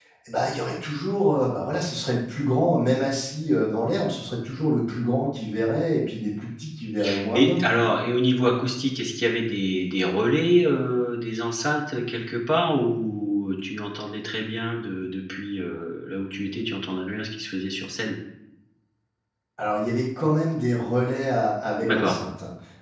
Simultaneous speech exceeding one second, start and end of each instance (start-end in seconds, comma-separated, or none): none